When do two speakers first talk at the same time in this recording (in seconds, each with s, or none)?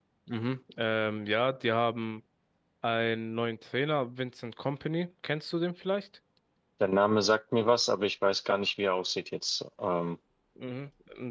none